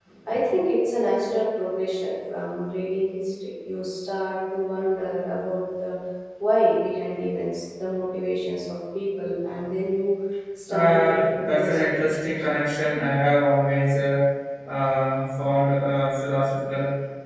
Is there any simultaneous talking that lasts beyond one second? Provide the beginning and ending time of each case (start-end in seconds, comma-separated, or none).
10.7-12.6